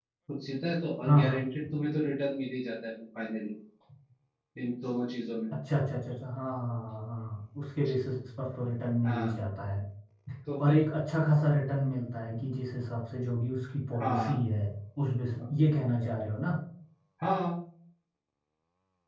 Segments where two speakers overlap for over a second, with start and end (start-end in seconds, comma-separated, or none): none